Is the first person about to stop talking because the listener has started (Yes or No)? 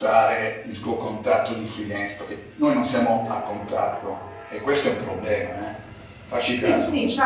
Yes